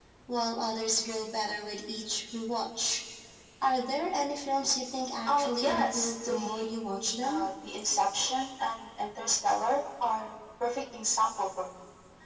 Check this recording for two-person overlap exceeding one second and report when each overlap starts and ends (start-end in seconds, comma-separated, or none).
5.3-6.6